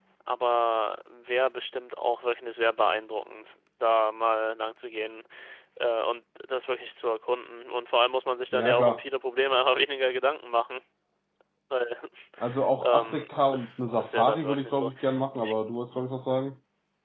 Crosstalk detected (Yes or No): Yes